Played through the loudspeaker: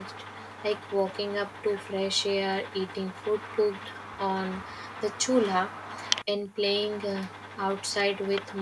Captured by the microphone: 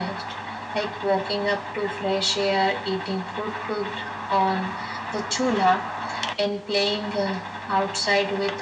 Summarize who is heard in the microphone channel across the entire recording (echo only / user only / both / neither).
echo only